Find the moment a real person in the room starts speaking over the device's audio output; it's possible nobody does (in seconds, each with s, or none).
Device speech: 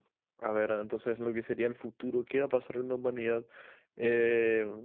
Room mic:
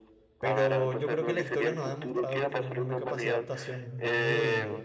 0.4 s